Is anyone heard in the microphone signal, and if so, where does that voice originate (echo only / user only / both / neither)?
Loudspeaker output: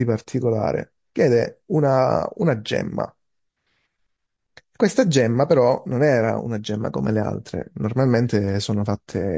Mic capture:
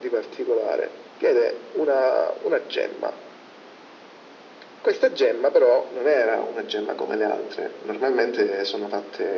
echo only